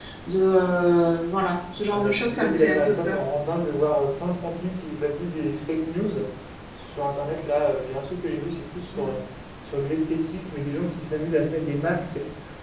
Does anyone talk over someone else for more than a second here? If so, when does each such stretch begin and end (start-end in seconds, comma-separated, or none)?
1.9-3.2